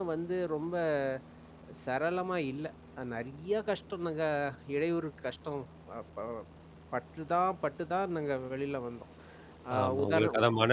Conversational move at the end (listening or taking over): taking over